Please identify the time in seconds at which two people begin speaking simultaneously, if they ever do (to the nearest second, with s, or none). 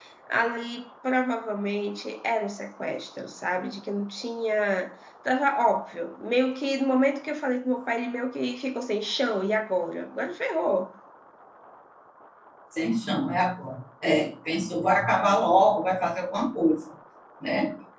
none